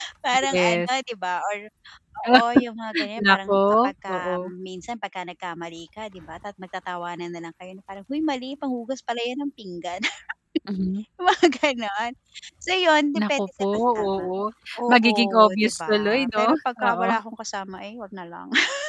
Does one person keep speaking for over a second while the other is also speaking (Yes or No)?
Yes